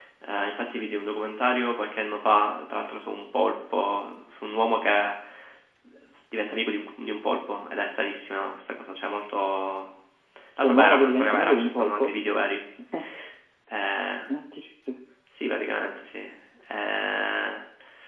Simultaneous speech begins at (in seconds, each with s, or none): 10.6 s